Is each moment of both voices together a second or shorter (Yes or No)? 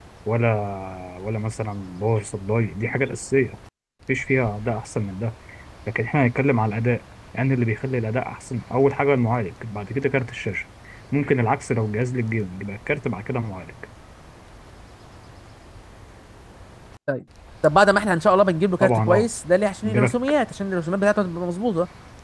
Yes